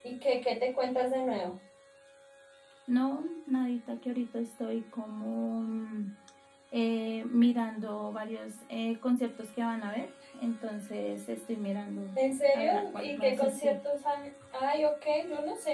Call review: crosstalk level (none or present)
present